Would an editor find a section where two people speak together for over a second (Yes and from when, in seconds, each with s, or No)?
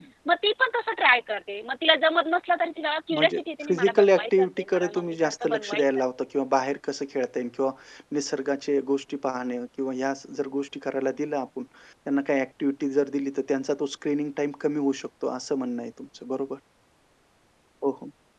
Yes, from 3.1 s